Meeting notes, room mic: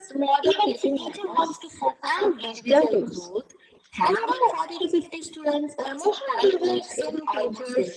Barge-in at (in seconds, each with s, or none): none